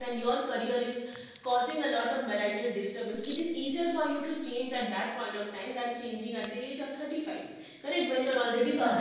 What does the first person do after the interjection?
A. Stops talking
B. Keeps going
B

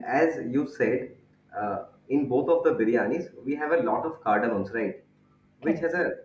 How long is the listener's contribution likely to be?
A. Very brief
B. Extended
A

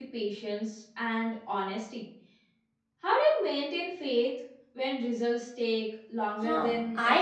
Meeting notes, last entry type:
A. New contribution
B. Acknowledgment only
A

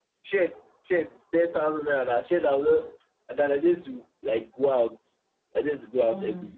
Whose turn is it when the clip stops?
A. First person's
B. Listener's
A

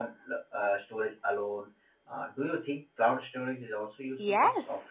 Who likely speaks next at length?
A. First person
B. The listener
B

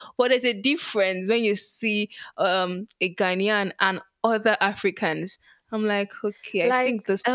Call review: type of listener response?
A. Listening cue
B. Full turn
B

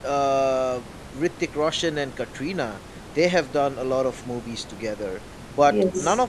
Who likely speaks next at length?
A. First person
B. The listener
A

